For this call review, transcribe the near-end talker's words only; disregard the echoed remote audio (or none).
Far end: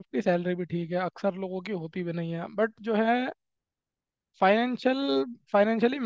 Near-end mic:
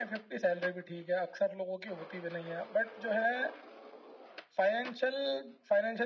none